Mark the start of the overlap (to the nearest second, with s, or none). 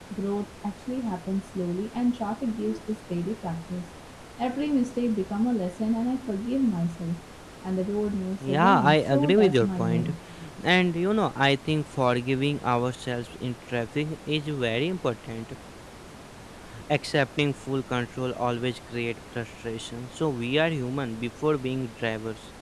8 s